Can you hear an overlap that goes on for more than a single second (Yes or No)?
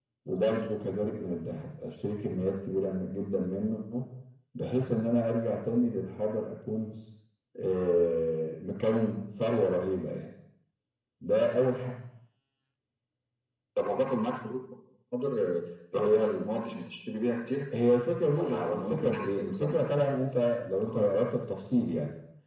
Yes